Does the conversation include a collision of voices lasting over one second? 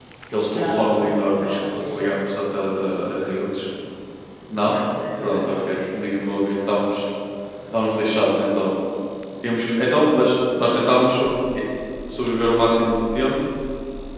Yes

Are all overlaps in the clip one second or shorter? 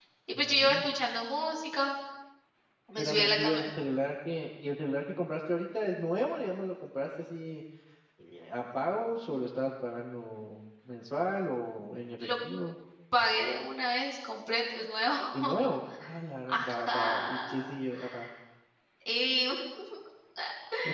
No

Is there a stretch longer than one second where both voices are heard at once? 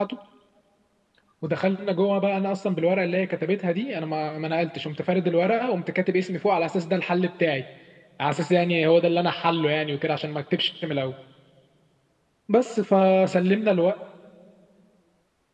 No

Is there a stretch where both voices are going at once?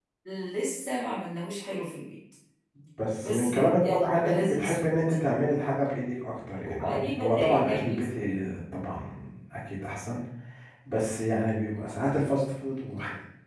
Yes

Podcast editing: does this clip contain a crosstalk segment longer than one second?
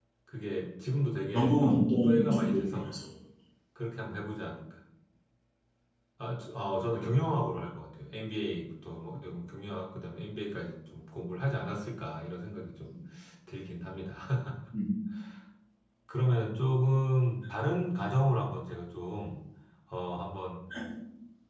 Yes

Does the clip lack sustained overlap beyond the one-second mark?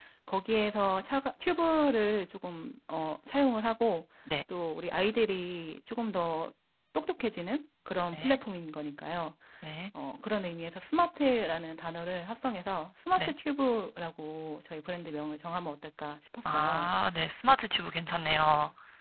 Yes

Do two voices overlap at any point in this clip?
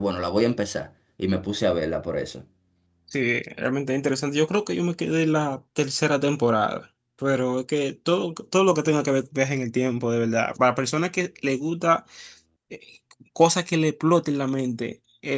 No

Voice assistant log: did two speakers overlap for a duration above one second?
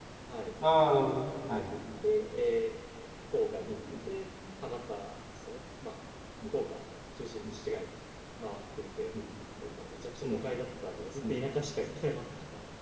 No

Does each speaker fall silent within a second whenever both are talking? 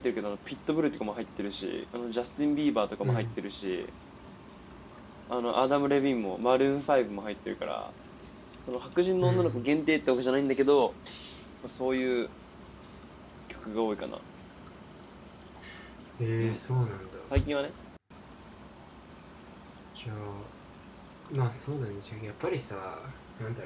Yes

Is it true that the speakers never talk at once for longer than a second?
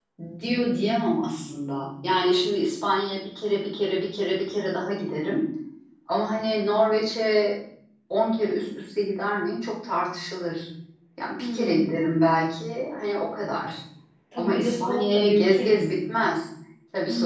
No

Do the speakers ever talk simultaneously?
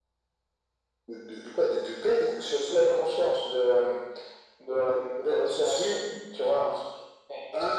Yes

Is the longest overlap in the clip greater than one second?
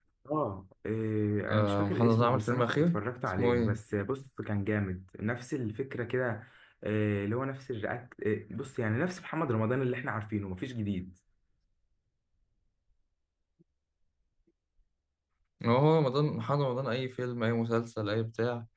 Yes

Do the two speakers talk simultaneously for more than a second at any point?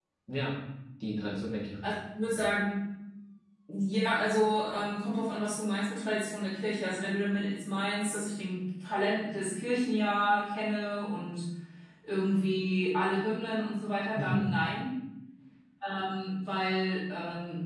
No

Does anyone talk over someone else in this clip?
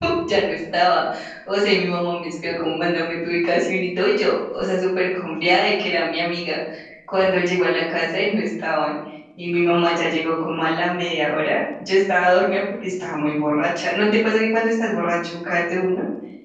No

